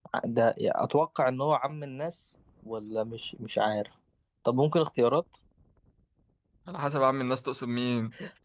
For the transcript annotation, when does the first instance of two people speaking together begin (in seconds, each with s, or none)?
none